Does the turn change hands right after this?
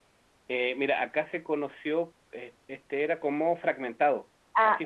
No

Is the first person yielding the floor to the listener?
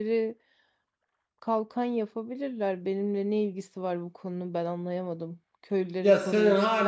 Yes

